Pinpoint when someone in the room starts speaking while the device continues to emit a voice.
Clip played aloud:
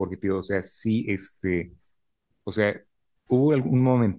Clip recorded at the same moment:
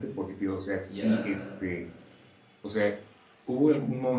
0.9 s

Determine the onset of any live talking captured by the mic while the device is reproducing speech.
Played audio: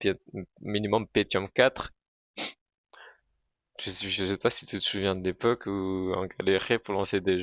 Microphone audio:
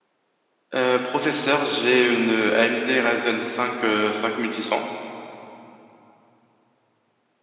0.7 s

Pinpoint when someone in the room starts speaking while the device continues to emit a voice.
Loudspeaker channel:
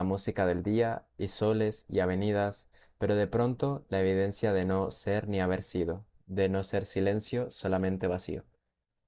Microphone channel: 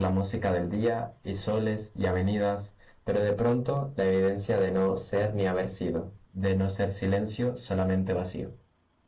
none

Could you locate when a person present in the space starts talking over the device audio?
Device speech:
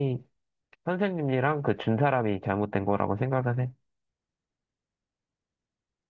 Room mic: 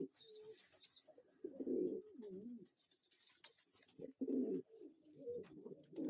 none

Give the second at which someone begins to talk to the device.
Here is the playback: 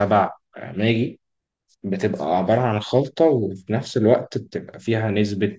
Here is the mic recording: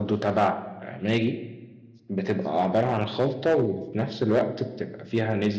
none

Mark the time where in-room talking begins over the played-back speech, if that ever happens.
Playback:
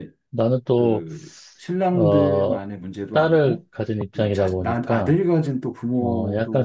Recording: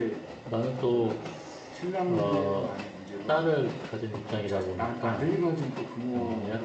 none

